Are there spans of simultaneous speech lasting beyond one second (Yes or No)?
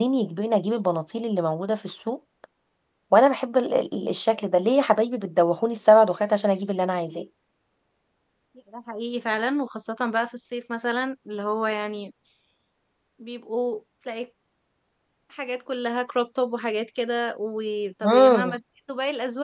No